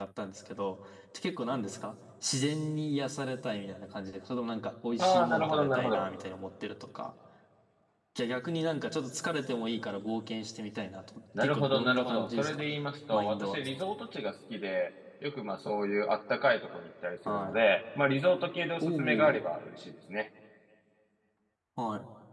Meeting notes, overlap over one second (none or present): present